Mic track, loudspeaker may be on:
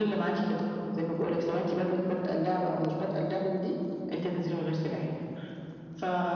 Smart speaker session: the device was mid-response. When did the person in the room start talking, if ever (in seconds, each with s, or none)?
none